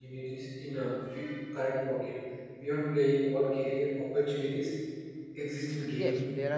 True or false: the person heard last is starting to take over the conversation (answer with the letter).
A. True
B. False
A